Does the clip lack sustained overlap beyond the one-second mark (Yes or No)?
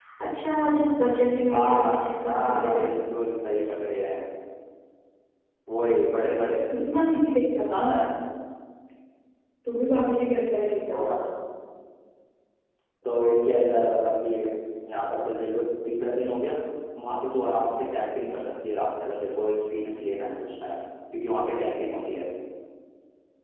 No